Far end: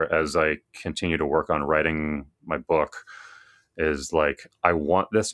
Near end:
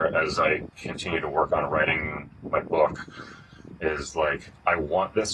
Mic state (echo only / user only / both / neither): echo only